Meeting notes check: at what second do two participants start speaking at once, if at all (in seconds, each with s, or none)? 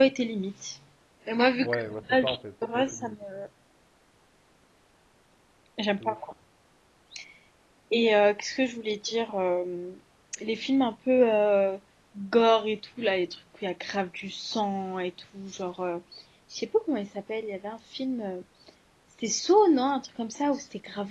1.6 s